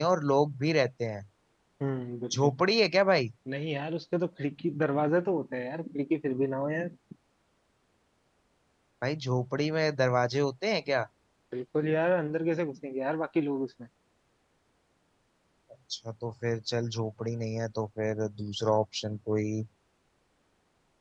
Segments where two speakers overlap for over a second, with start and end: none

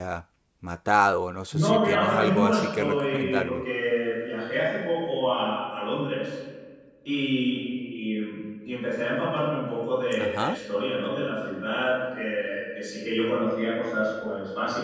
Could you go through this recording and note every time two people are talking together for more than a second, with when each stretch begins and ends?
1.5-3.6

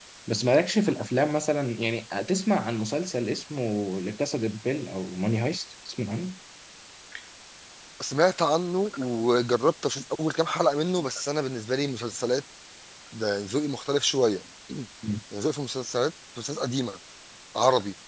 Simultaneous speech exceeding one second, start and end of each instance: none

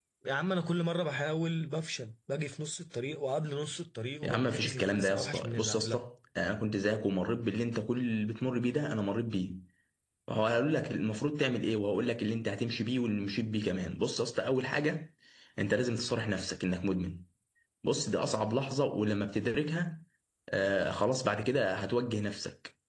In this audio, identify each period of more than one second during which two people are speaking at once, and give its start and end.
4.2-6.0

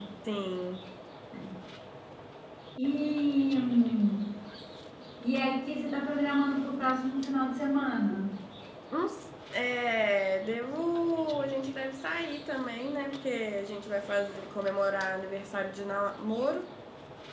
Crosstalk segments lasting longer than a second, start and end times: none

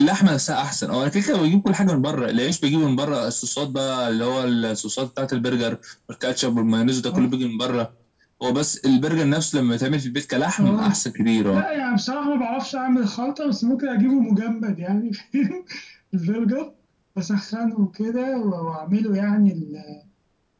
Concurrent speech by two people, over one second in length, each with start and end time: none

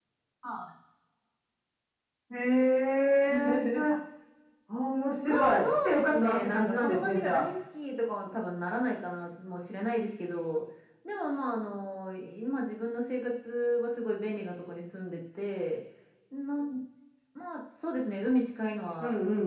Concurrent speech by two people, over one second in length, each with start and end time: 5.2-7.4

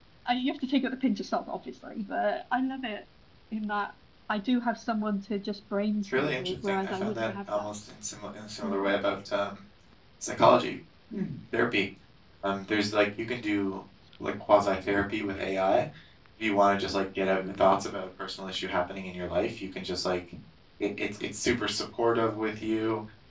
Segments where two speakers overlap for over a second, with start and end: 6.0-7.7

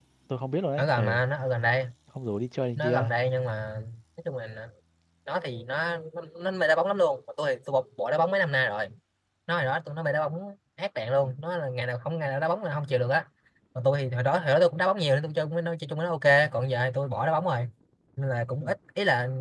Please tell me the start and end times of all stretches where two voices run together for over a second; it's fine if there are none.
none

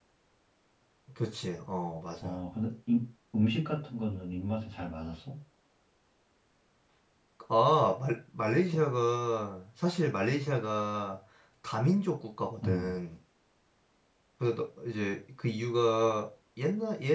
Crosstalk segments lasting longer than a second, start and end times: none

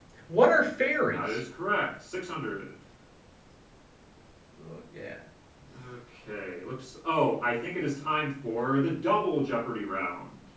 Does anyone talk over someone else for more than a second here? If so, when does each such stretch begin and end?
none

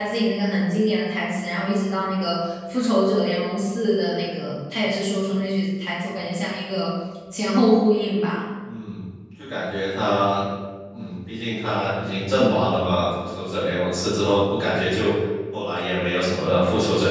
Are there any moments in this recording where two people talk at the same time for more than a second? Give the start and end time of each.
none

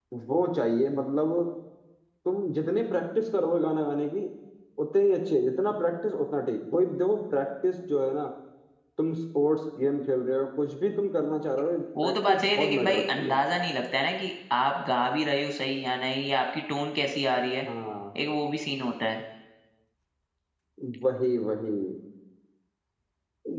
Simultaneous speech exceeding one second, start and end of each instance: 12.0-13.3

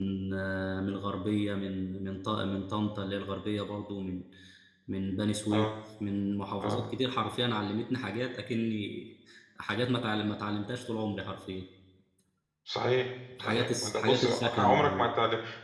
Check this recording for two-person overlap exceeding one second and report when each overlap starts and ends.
13.4-15.1

